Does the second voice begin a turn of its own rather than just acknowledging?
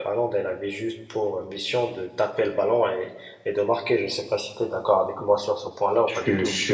Yes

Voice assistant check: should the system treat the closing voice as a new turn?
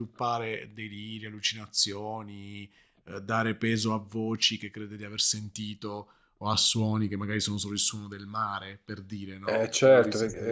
Yes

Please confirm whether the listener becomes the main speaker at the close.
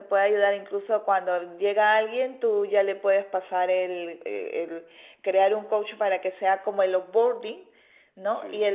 No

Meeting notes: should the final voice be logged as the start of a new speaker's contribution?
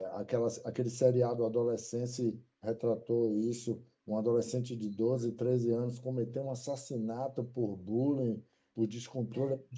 No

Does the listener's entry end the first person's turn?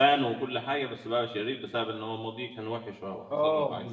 Yes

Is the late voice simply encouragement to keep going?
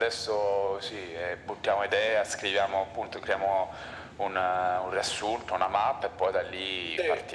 No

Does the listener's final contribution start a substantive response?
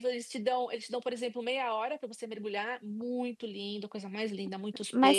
Yes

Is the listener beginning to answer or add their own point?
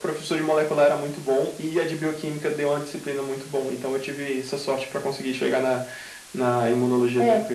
Yes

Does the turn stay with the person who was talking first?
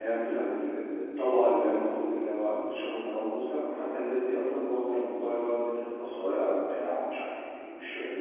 No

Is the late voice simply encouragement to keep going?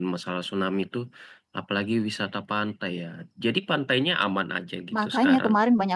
No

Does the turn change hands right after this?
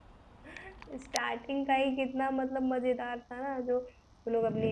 No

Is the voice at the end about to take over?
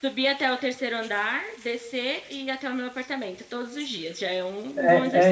Yes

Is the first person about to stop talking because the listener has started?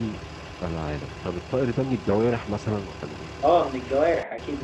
Yes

